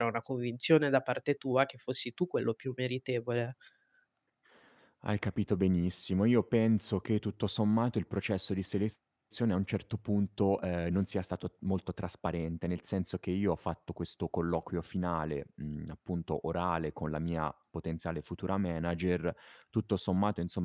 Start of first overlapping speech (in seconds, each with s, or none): none